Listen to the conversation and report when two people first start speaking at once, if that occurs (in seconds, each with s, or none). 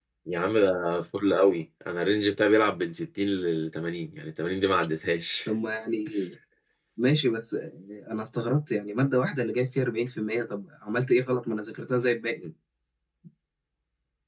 none